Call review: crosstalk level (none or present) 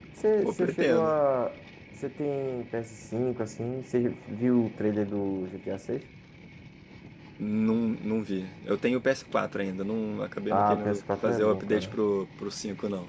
present